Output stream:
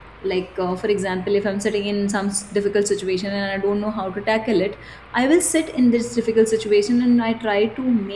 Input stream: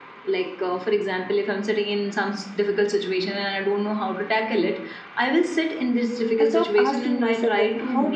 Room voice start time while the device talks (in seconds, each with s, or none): 6.4 s